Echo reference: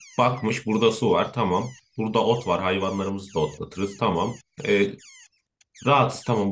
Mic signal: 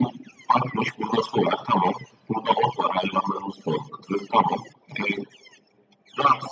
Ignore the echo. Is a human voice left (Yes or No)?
No